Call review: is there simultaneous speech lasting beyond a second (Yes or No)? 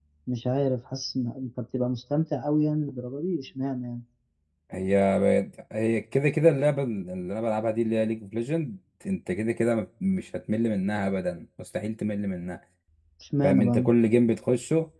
No